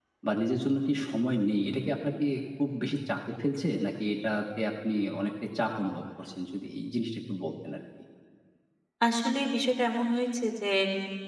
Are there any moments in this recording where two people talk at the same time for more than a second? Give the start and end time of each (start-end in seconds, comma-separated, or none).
none